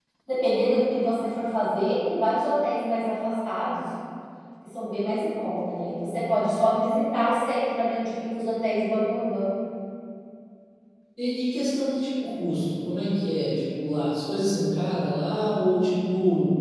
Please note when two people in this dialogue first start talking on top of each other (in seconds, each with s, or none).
none